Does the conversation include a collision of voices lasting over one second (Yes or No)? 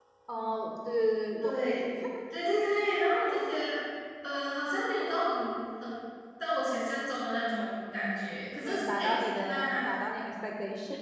Yes